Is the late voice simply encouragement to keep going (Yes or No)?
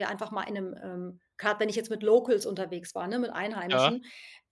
Yes